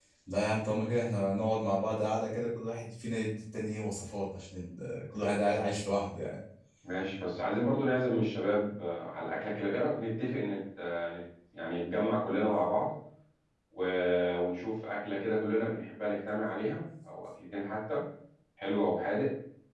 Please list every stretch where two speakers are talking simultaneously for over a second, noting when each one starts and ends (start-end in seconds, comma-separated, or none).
none